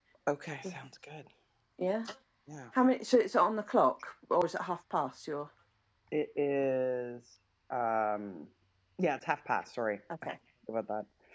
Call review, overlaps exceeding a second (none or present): none